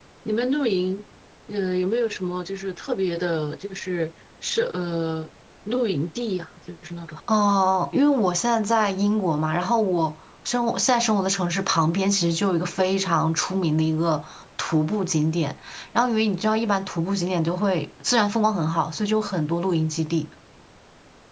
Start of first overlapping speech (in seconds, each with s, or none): none